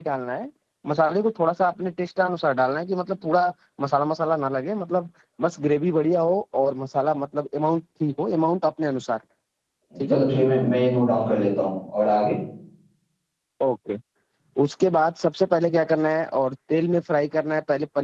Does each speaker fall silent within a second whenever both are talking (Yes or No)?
Yes